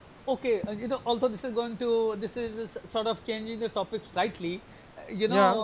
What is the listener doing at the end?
listening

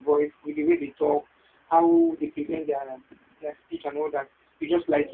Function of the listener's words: listening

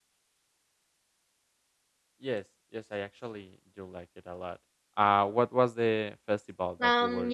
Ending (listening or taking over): taking over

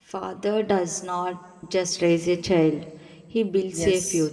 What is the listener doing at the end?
taking over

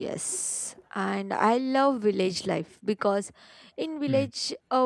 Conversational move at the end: listening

